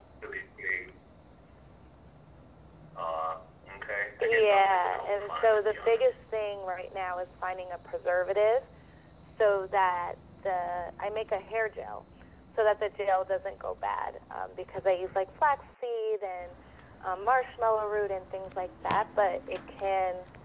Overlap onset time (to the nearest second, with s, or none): 4 s